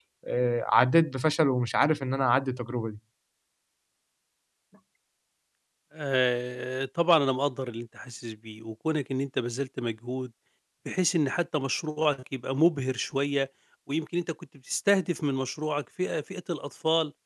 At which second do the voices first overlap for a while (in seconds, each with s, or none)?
none